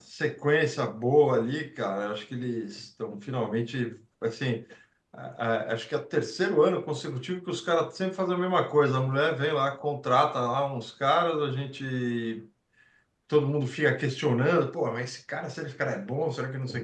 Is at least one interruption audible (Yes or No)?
No